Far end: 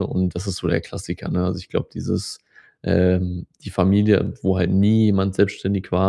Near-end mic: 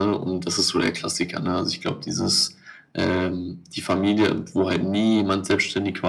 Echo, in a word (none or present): present